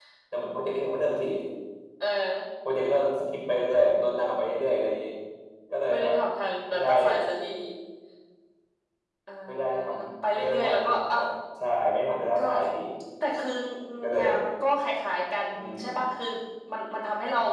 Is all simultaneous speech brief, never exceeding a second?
No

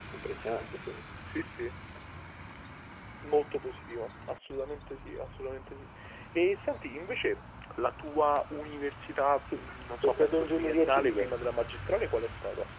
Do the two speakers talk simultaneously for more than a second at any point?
Yes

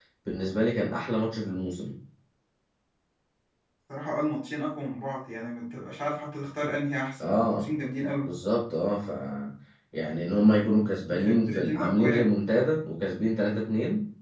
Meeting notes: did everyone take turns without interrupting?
No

